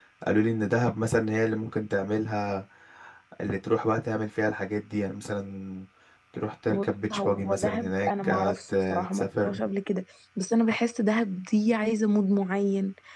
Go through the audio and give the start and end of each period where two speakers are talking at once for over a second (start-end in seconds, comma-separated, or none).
6.7-9.6